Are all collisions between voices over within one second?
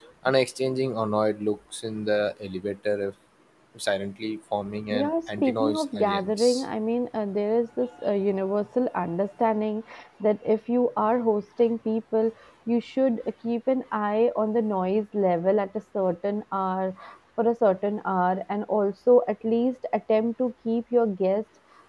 No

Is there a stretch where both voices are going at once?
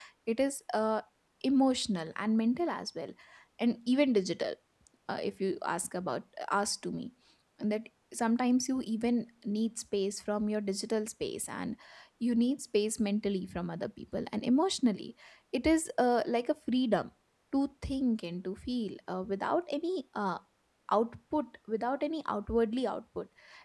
No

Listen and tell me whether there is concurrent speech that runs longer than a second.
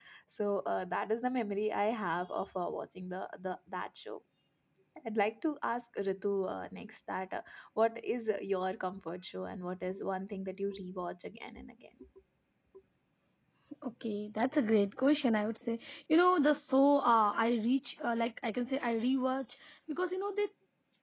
No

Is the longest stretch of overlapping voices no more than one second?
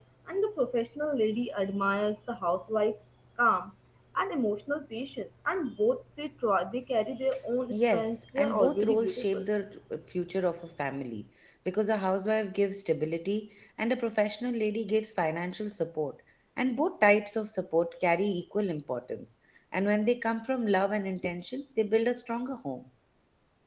No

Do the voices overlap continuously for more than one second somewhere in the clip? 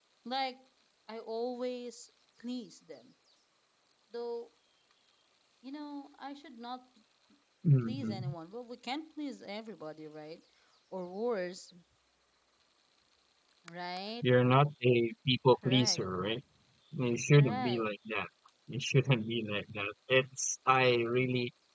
No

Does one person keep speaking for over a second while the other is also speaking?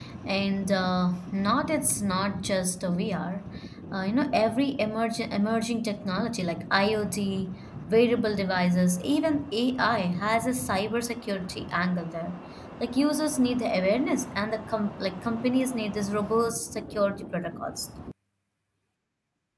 No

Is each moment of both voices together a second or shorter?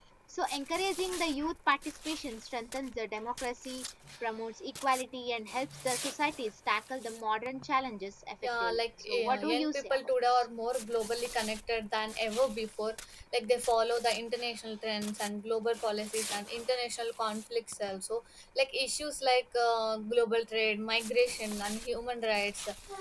No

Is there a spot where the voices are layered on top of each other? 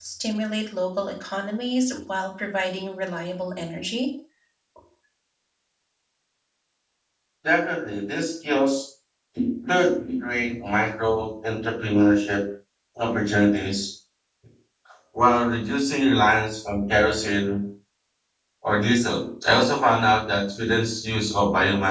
No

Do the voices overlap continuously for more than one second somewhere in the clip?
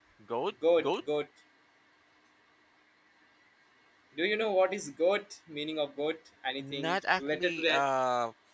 Yes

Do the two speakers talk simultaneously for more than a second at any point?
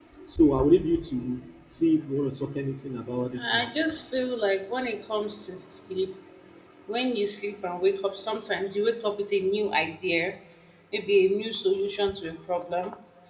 No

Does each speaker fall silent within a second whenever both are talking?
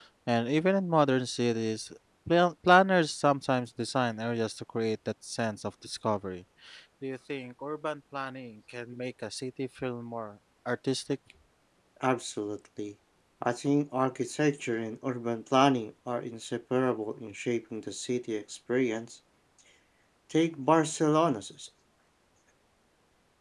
Yes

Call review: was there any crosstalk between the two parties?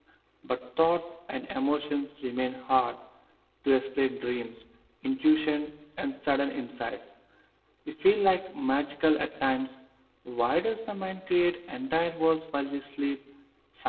No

